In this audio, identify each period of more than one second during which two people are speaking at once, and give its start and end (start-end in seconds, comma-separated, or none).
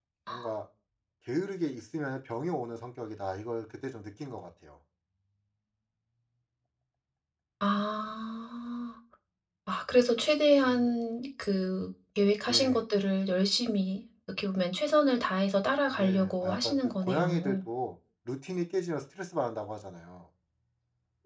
15.9-17.6